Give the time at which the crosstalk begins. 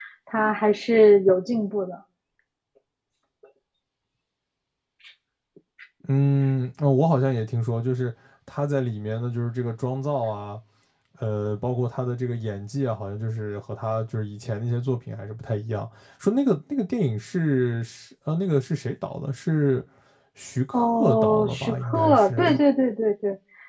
20.7 s

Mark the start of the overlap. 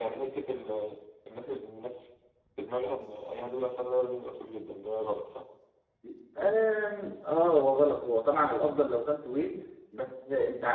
none

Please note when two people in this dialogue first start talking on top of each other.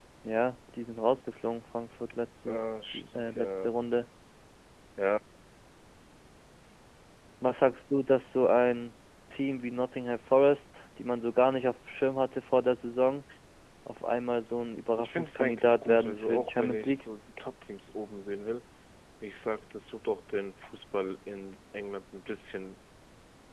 2.5 s

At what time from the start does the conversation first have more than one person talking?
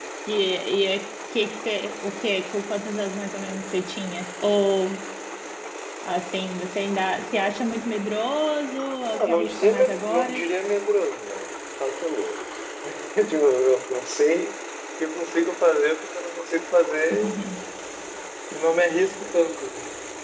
9.1 s

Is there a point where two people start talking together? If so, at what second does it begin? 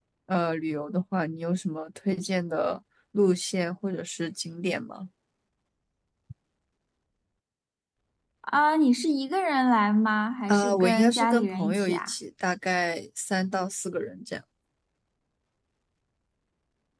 10.5 s

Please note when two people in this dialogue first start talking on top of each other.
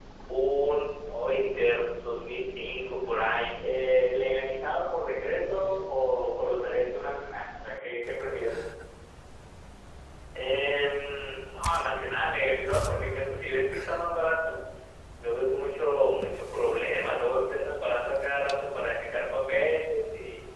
none

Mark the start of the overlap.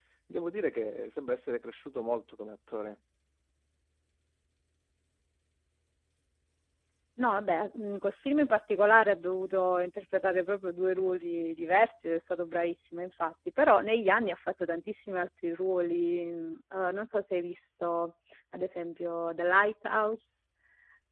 none

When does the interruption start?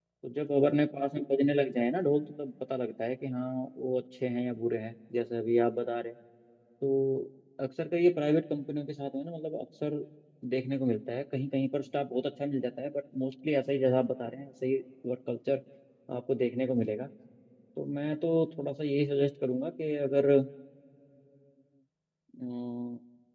none

